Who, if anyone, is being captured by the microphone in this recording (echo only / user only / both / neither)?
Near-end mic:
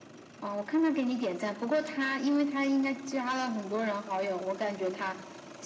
echo only